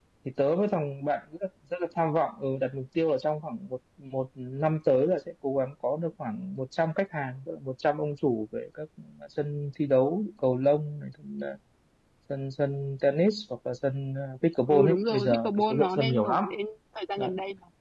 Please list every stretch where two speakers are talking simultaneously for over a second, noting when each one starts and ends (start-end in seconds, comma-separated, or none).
14.7-16.4